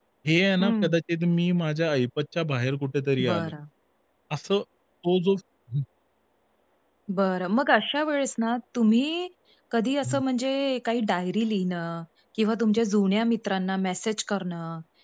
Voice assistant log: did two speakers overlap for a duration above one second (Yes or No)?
No